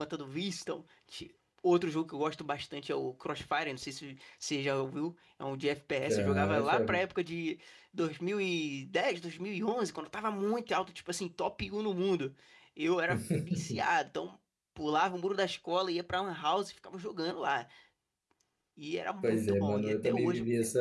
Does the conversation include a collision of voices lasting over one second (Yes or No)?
Yes